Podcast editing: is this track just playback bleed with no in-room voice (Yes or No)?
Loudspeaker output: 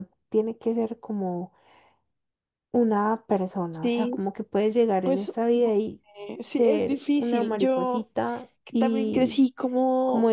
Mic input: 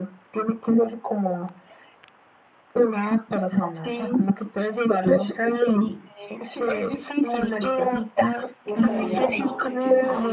No